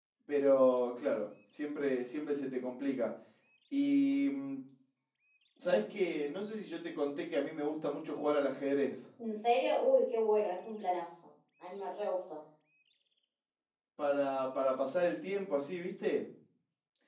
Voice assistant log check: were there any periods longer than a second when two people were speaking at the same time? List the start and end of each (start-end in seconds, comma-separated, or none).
none